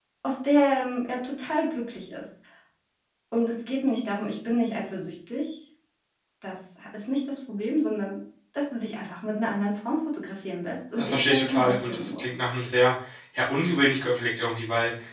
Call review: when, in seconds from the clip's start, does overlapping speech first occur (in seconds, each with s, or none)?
10.9 s